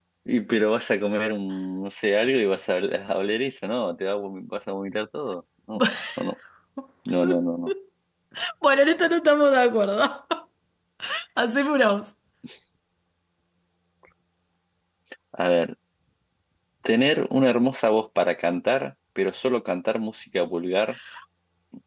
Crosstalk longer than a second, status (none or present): none